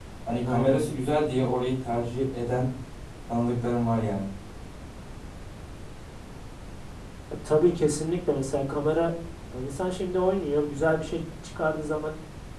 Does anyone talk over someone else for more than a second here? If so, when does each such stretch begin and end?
none

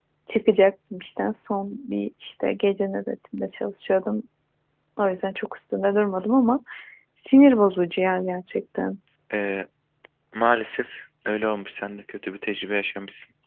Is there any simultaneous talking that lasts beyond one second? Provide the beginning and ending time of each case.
none

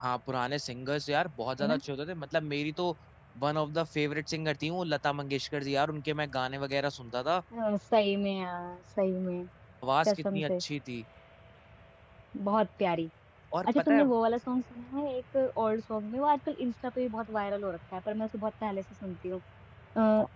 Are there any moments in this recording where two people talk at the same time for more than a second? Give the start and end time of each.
none

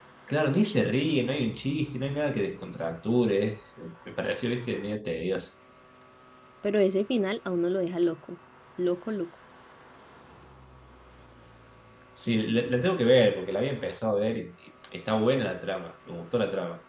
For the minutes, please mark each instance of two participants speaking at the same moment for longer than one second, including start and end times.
none

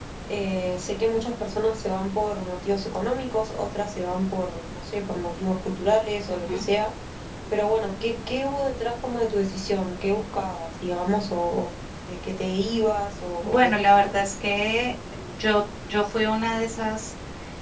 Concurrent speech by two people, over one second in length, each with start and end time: none

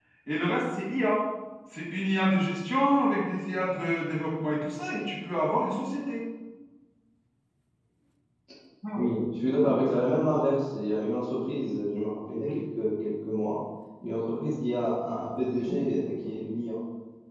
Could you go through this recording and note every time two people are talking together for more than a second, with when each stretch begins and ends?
none

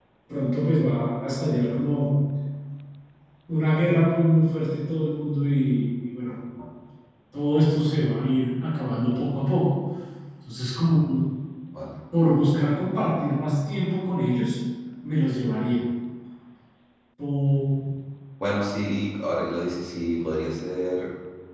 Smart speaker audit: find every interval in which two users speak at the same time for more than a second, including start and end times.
none

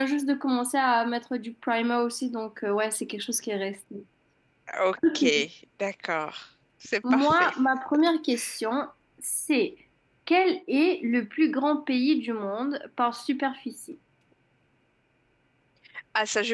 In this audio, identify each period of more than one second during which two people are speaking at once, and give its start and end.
none

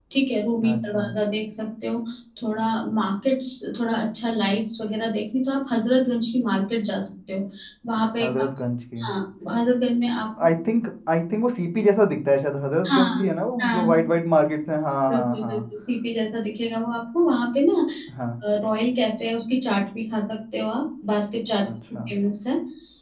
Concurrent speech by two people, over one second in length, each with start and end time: none

